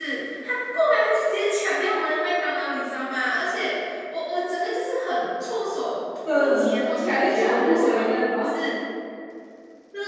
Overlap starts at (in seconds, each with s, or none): 6.2 s